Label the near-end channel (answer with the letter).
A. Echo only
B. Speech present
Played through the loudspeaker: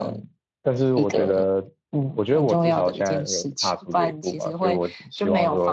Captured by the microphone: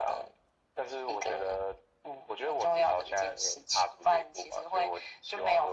A